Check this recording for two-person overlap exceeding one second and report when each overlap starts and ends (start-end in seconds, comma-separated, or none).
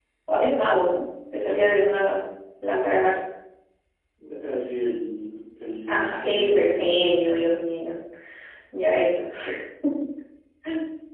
5.9-7.1